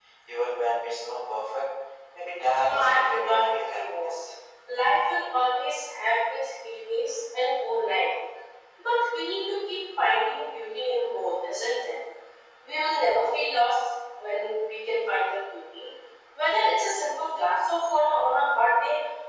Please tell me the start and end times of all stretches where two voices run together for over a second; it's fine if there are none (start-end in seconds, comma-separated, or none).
2.6-4.1